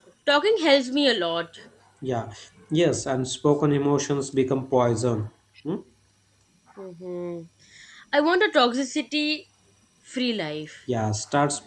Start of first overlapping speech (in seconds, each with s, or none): none